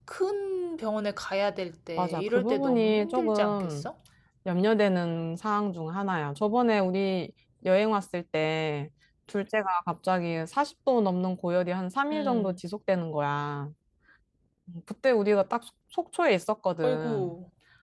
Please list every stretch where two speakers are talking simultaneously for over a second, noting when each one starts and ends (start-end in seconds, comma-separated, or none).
2.0-3.8